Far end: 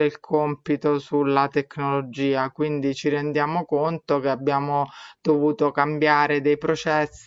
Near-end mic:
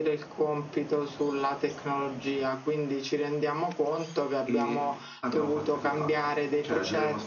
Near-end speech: present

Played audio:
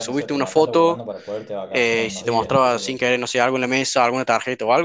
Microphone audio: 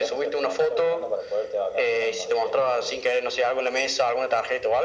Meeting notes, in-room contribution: none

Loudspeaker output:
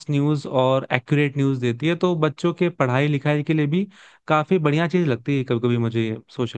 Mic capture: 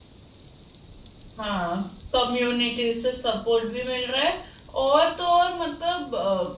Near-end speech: present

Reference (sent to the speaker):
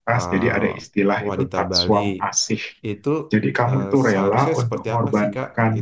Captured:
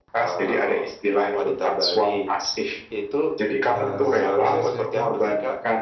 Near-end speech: present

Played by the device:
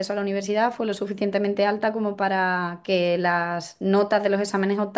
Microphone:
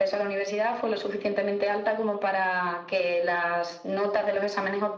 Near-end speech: none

